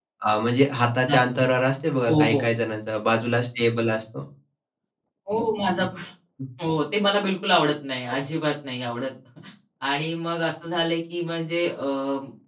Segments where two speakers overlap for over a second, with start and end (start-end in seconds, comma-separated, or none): none